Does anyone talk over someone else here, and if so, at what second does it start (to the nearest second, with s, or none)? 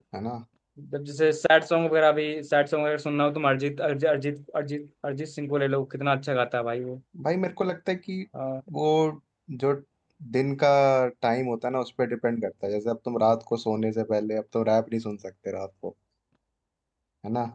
none